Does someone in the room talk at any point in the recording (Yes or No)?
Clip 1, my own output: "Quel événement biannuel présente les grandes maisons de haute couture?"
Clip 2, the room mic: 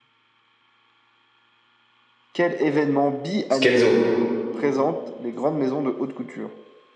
Yes